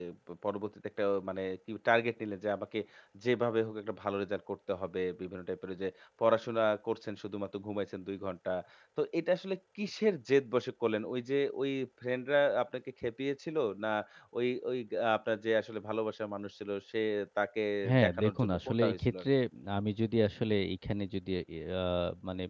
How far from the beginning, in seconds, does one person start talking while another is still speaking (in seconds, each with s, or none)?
18.0 s